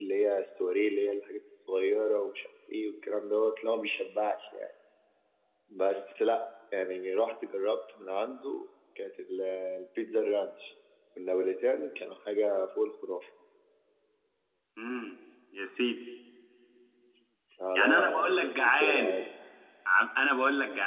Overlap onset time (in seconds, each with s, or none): 17.8 s